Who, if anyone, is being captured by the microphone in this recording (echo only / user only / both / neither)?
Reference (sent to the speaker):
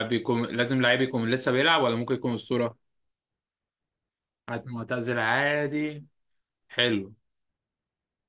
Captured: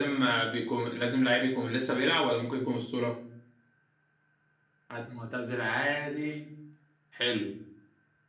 echo only